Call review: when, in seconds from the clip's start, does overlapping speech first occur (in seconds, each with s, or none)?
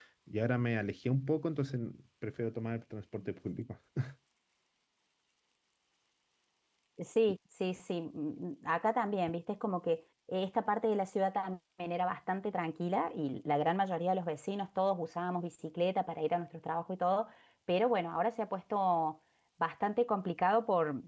none